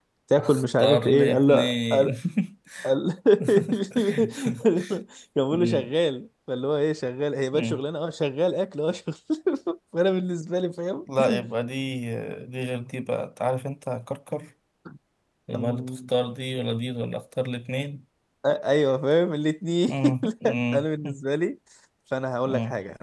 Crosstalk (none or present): present